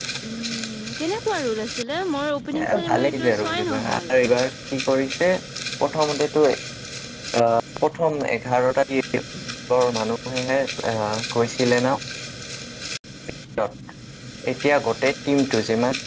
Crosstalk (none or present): present